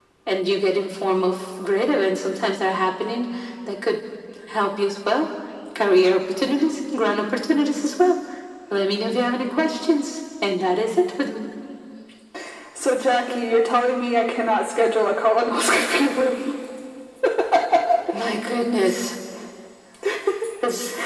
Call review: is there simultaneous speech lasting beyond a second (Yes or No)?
No